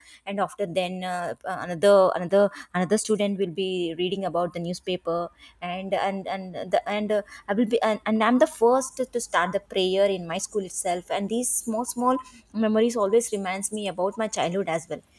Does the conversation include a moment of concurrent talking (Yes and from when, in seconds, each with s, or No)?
No